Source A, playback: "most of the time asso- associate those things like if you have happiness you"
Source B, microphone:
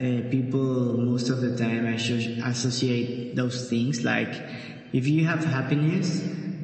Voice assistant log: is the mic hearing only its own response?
Yes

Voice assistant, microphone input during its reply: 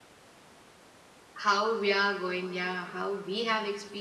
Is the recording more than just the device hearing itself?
Yes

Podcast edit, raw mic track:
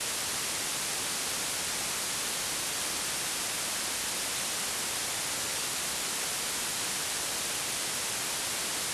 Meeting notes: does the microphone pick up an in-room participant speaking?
No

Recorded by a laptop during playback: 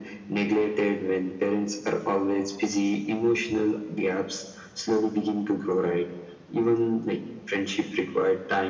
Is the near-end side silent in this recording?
Yes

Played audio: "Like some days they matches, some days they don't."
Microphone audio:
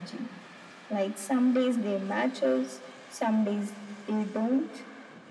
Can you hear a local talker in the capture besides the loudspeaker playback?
No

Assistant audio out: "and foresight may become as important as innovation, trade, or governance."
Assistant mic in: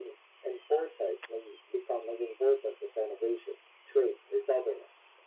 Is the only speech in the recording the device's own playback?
Yes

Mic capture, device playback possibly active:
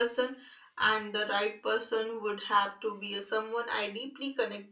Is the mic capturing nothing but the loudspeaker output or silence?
Yes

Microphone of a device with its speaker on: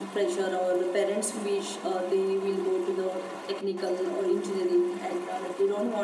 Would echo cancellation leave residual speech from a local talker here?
No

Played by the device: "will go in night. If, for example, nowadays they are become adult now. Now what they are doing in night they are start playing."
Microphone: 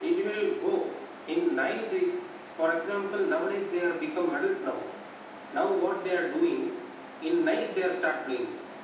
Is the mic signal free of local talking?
Yes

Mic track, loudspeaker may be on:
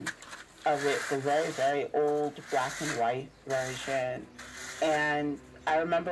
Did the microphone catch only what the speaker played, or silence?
Yes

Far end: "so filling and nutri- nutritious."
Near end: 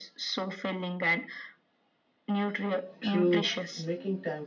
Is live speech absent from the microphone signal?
No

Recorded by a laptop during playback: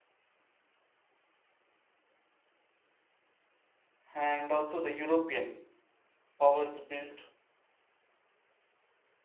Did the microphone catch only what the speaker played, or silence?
No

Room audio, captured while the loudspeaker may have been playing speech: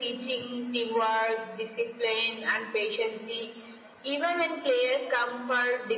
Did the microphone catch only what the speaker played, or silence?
Yes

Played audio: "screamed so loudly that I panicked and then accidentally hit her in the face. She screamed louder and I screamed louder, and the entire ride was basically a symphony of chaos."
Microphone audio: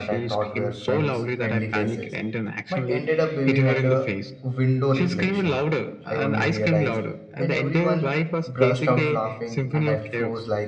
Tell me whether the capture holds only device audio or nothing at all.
No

